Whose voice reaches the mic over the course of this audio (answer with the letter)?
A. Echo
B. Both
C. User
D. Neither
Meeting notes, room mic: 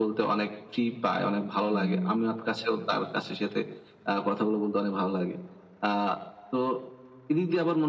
B